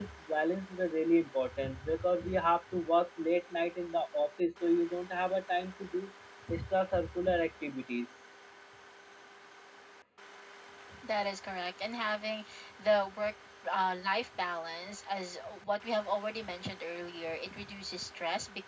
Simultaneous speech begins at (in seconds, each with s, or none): none